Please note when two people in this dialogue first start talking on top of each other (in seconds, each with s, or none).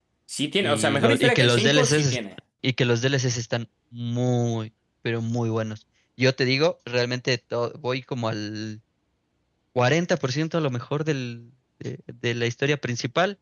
0.6 s